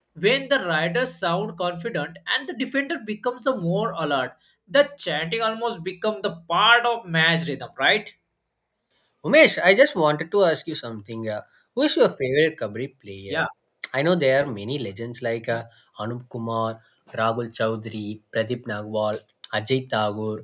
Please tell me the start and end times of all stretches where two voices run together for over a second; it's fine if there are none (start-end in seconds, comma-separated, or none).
none